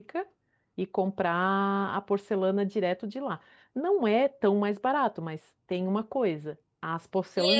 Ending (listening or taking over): taking over